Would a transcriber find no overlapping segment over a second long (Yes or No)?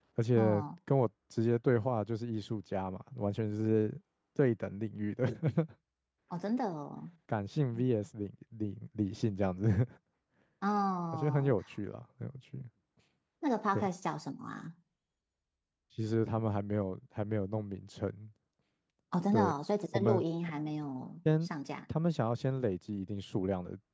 Yes